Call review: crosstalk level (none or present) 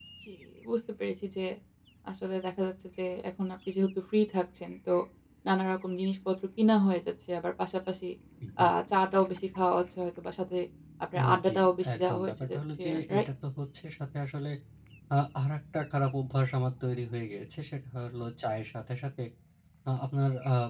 present